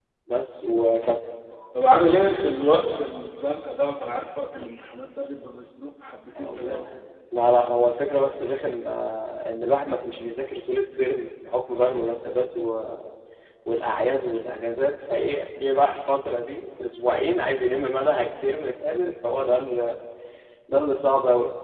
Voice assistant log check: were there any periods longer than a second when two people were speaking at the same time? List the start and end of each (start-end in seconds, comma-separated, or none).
none